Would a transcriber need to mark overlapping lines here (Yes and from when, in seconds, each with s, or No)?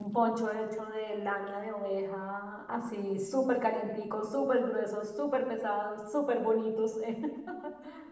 No